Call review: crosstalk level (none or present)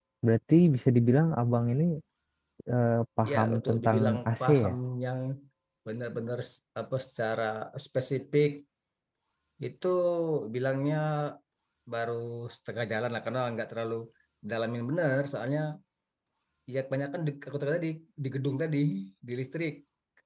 present